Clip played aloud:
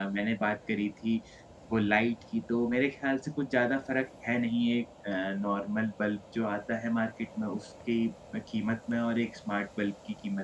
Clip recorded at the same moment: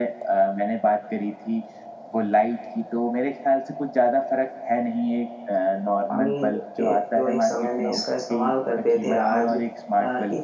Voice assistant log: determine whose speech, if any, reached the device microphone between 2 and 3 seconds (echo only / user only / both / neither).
echo only